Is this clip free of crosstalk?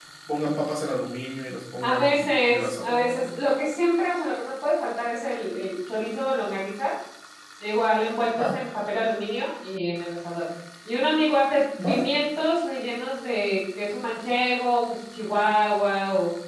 No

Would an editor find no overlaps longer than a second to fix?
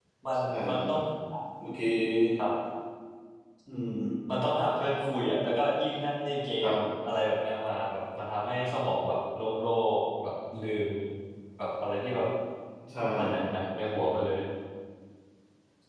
Yes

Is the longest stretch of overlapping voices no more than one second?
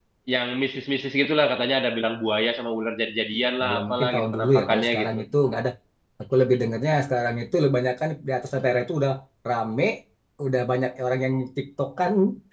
No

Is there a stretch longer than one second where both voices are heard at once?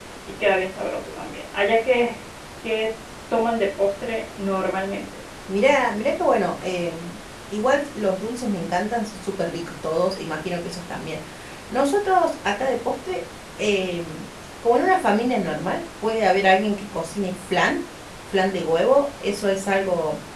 No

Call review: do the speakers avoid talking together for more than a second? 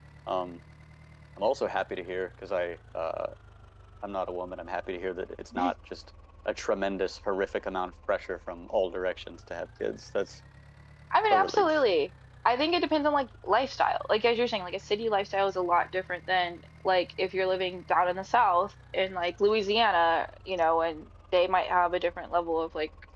Yes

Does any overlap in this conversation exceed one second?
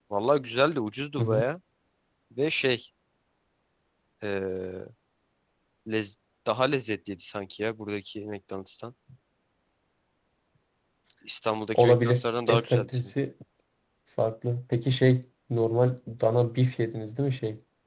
Yes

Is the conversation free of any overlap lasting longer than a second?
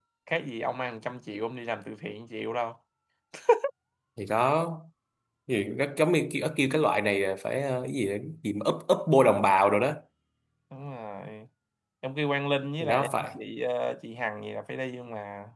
Yes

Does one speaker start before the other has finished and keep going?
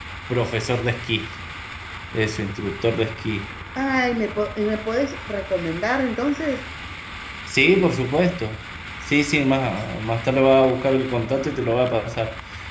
No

